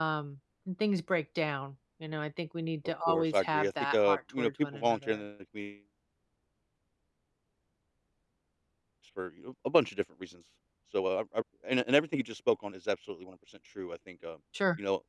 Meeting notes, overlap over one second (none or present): present